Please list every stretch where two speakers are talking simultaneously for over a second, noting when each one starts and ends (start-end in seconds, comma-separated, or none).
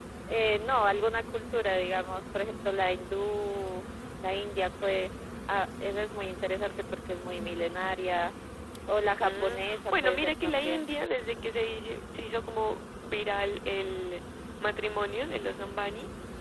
9.2-10.9